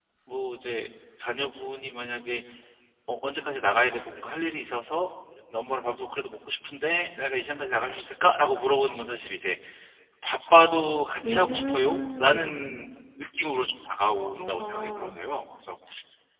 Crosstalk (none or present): present